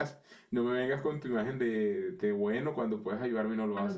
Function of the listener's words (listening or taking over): taking over